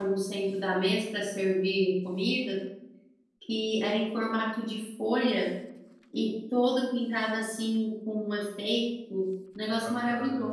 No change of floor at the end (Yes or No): No